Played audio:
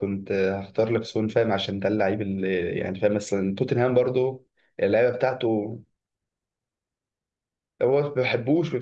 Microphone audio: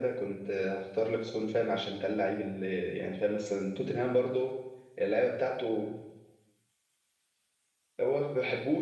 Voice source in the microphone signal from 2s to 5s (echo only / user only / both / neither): echo only